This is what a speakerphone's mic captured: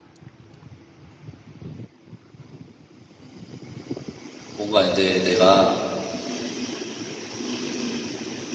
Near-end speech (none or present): present